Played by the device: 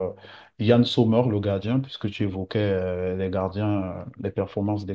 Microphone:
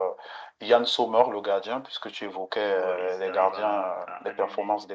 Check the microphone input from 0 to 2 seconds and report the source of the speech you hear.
echo only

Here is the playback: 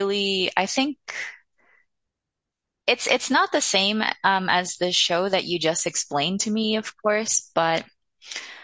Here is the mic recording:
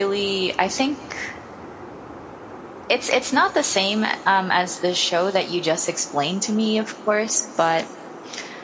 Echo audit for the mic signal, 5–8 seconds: echo only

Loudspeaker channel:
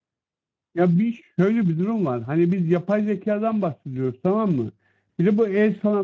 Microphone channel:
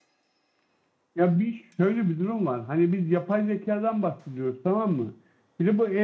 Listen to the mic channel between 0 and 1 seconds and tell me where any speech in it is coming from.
neither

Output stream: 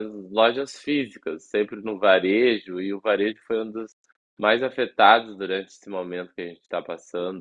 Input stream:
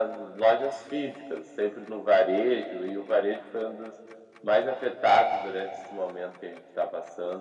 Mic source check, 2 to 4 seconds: echo only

